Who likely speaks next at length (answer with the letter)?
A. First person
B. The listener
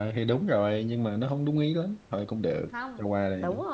B